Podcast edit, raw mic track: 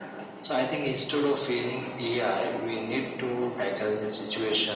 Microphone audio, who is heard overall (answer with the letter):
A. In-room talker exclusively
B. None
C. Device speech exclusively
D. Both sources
C